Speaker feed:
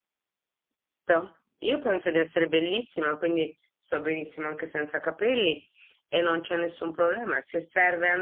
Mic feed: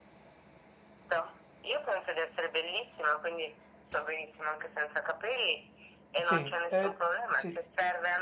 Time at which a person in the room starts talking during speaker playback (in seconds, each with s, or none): 6.2 s